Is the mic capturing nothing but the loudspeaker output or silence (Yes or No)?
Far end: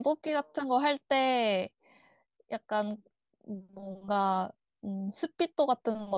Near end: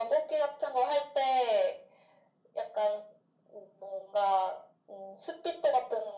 Yes